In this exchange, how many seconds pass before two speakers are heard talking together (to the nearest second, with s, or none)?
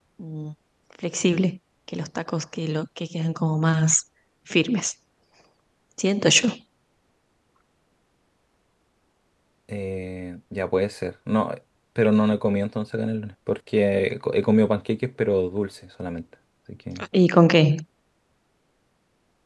none